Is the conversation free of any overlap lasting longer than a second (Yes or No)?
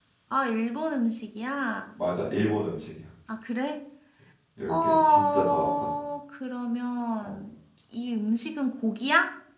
No